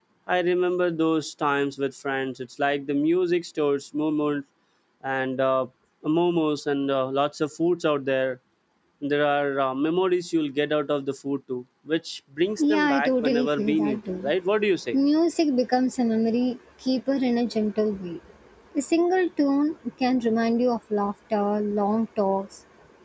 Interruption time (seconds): 12.6 s

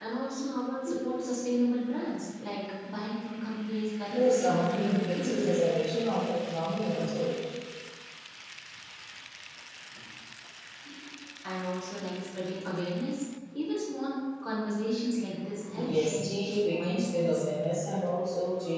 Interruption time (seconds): 4.0 s

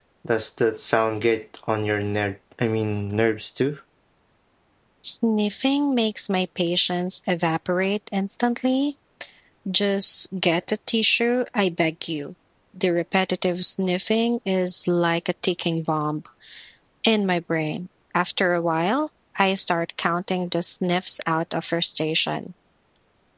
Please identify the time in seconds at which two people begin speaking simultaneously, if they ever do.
none

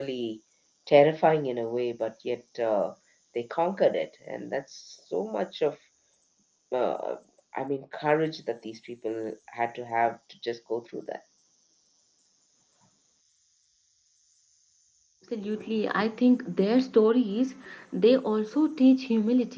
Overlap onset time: none

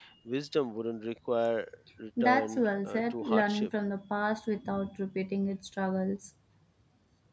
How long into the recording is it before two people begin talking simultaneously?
2.2 s

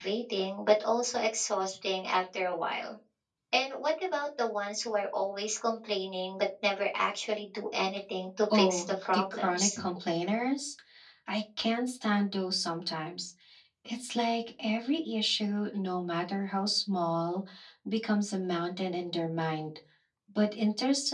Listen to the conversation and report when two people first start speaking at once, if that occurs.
8.5 s

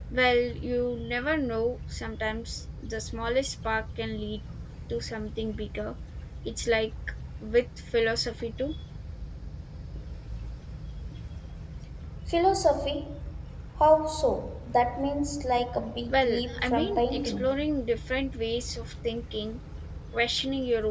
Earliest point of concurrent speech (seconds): 16.1 s

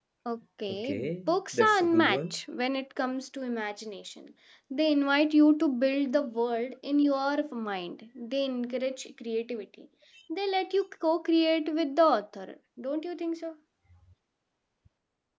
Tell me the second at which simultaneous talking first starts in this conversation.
0.7 s

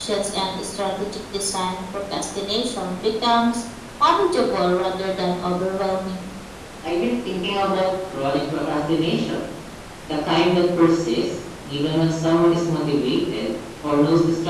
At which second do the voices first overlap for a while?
none

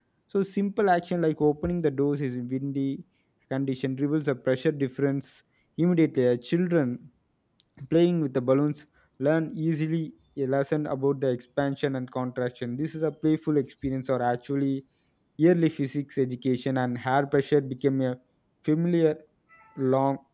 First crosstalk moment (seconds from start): none

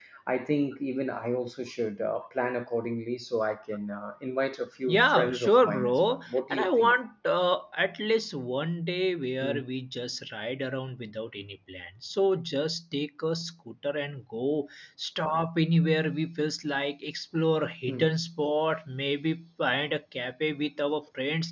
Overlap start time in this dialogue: 4.9 s

